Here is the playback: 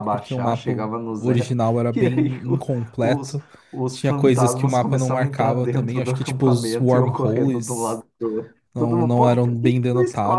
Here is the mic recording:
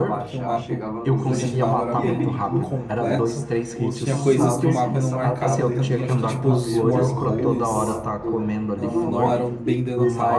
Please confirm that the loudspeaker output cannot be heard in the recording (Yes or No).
No